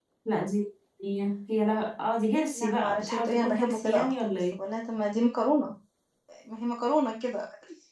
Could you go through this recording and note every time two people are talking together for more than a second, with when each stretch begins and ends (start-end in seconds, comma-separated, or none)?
2.5-4.6